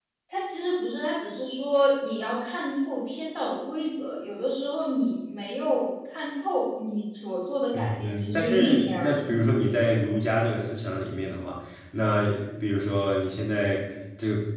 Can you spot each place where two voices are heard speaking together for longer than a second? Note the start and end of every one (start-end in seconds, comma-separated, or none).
7.7-9.4